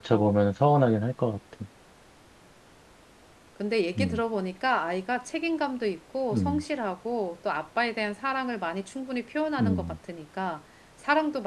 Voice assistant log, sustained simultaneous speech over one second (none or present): none